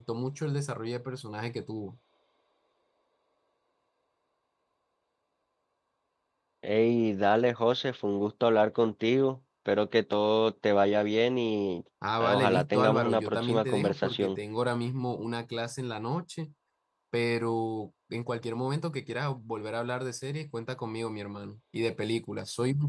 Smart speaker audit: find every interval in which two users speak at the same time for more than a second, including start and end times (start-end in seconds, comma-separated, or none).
12.2-14.4